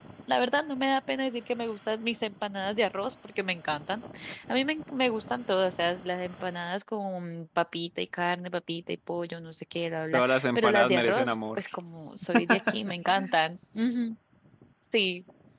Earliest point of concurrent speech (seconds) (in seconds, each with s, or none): 10.1 s